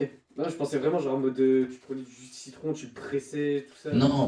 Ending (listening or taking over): taking over